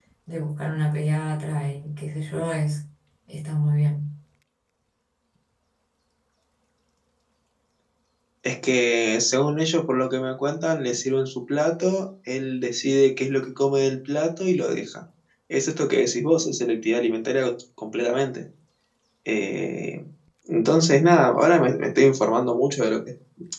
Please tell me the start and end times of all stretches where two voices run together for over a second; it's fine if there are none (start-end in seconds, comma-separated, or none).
none